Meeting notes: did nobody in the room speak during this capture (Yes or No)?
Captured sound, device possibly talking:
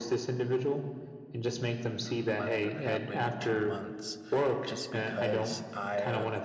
No